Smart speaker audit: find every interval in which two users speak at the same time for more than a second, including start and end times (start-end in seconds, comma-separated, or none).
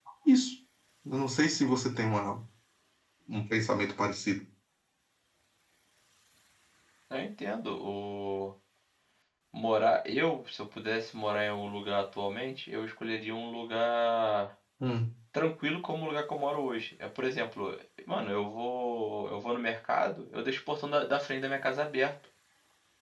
none